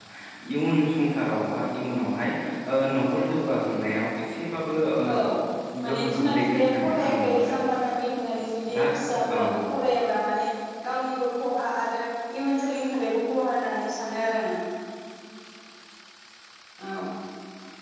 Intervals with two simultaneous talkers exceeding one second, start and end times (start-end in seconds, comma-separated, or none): 5.9-7.5